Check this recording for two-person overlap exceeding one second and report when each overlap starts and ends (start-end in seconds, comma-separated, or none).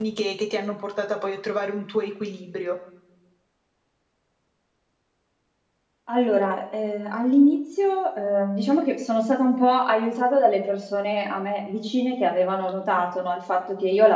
none